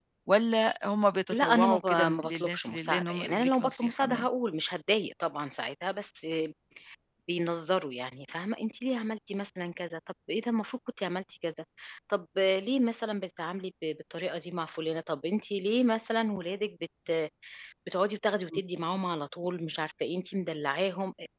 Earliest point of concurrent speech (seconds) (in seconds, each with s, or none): 1.3 s